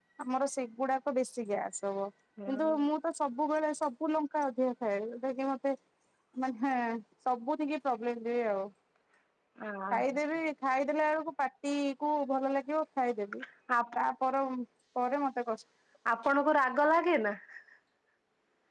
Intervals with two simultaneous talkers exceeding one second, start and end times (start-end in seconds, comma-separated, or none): none